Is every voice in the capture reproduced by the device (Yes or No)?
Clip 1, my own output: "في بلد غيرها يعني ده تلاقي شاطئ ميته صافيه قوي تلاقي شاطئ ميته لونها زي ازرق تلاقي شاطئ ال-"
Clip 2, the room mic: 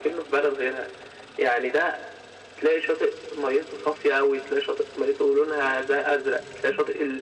Yes